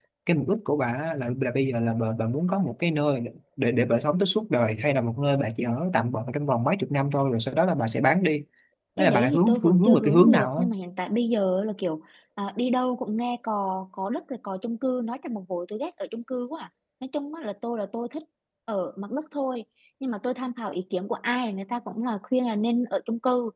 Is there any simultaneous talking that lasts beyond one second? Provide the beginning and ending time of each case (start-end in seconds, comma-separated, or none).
9.0-10.6